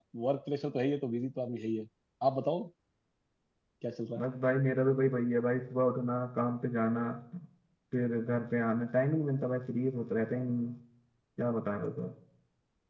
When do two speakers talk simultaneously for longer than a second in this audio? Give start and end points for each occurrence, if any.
none

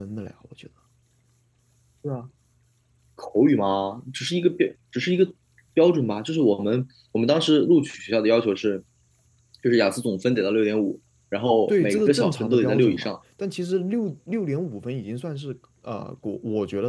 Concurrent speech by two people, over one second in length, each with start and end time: 11.7-13.1

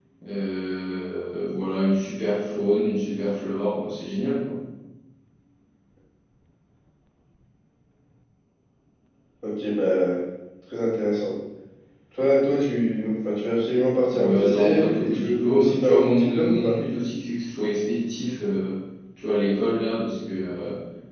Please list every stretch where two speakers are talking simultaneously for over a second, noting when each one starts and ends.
14.1-16.8

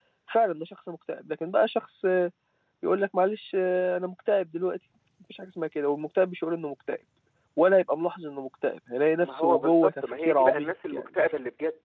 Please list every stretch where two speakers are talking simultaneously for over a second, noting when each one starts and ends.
9.2-11.0

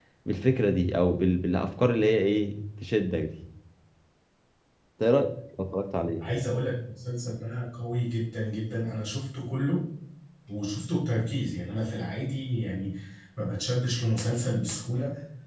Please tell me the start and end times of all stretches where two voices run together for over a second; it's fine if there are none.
none

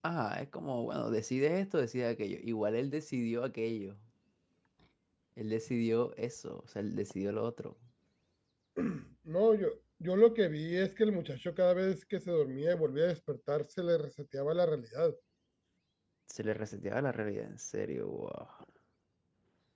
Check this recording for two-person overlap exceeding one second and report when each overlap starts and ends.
none

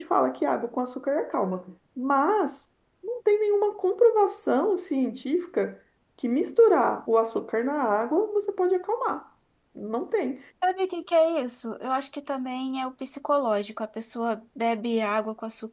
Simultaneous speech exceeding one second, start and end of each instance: none

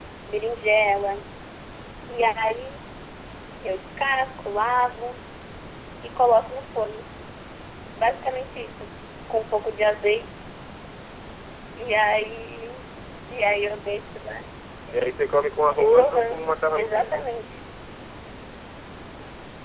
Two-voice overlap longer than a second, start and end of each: 15.7-17.2

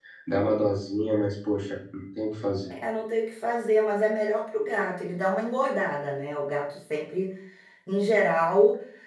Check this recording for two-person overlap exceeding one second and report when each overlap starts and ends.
none

